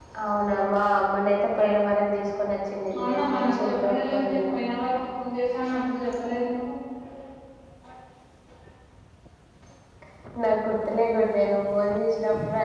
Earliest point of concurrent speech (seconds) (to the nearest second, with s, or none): 3 s